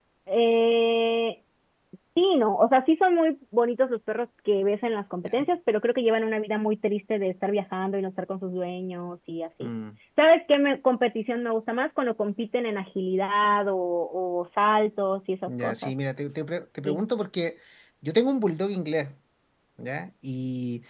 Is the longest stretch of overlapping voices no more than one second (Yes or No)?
Yes